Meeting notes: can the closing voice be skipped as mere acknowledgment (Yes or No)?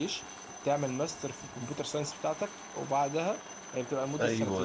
Yes